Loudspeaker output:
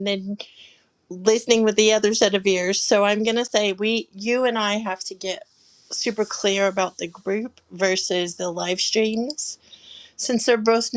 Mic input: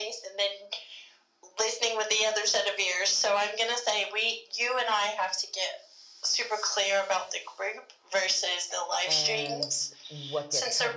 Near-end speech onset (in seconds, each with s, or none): 8.7 s